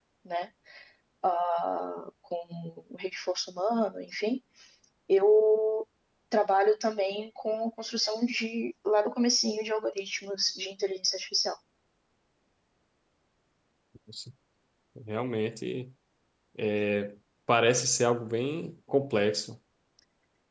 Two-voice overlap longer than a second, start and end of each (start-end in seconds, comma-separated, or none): none